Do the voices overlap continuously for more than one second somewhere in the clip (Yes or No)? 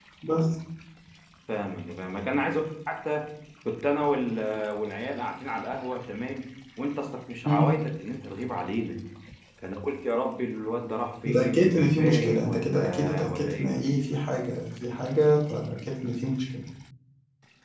Yes